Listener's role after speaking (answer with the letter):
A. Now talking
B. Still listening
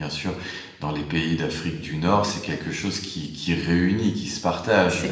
B